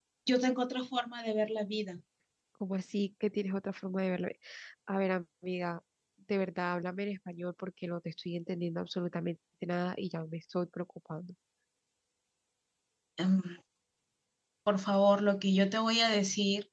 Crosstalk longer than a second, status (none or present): none